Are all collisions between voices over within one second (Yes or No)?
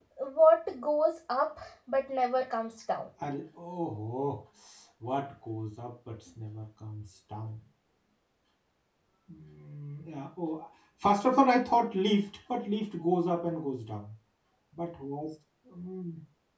Yes